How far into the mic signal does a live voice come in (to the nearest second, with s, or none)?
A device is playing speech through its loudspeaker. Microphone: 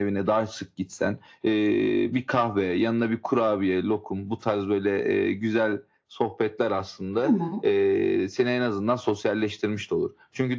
7 s